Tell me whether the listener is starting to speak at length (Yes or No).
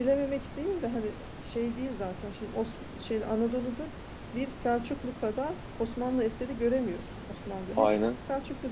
No